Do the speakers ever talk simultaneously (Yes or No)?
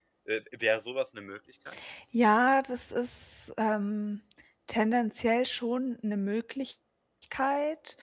No